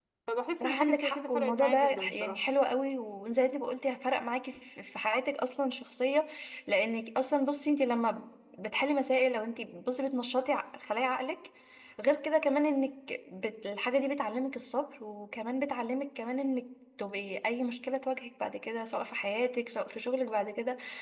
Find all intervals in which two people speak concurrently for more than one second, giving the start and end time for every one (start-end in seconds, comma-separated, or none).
0.6-2.4